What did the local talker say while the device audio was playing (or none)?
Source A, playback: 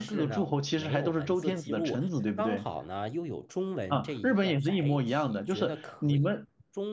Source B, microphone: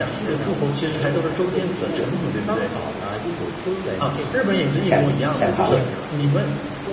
遣遣唐使，